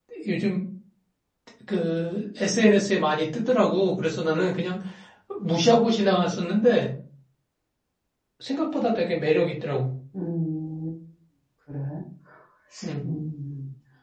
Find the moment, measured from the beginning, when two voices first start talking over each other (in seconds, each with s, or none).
none